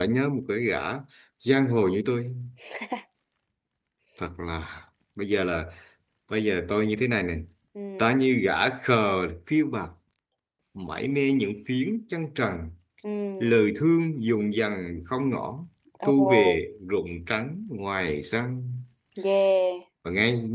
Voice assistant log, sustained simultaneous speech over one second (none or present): none